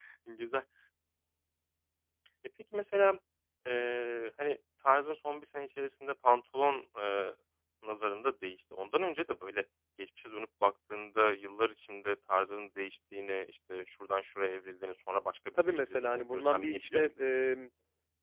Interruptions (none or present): present